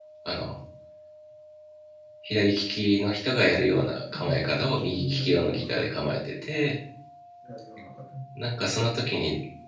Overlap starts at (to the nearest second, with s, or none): 4 s